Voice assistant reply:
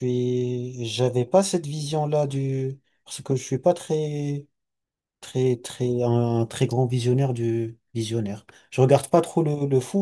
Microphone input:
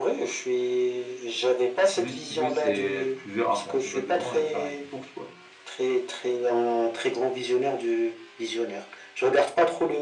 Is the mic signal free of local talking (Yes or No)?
No